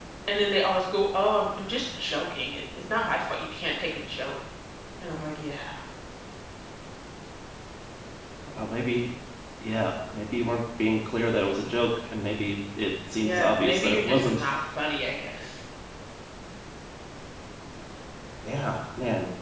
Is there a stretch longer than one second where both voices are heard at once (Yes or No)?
Yes